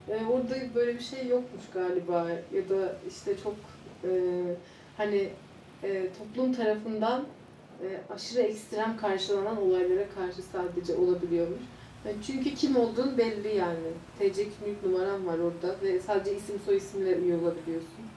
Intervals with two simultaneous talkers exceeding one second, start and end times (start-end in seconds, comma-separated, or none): none